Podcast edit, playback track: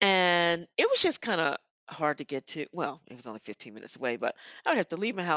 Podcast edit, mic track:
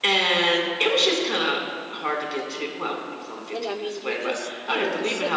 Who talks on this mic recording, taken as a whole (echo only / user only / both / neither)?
both